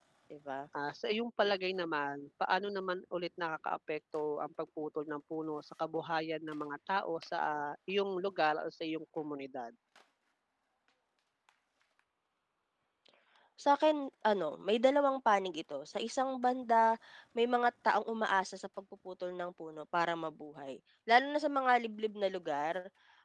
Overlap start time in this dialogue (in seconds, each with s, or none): none